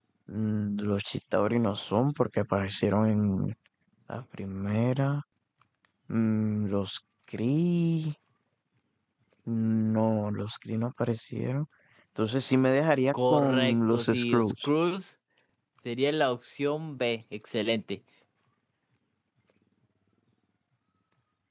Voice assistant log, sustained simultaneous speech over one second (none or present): present